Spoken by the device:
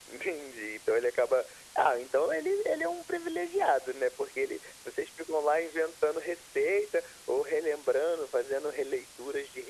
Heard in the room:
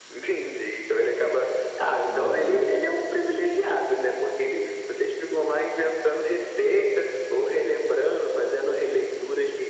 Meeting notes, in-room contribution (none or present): present